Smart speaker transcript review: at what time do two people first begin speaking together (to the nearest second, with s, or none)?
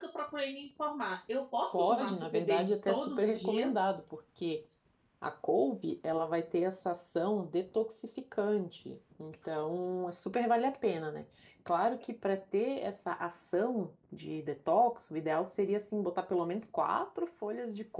2 s